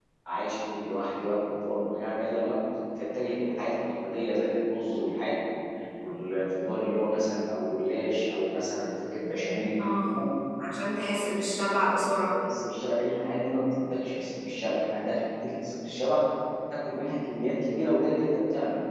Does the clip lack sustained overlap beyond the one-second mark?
Yes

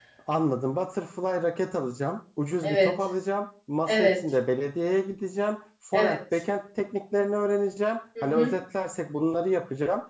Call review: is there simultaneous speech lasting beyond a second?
No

